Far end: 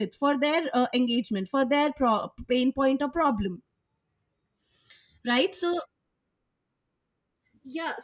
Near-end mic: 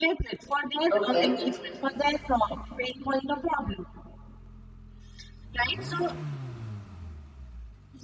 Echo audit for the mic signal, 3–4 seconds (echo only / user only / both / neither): echo only